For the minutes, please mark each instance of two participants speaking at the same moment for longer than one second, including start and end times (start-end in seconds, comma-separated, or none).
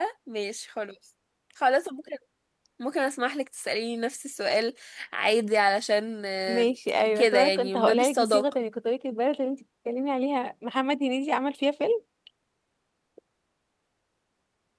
7.2-8.4